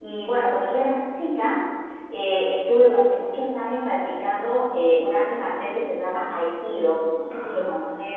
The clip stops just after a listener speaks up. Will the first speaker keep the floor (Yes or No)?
No